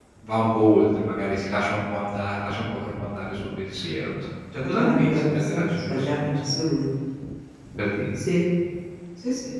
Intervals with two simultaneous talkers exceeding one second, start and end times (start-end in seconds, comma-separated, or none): 4.8-6.2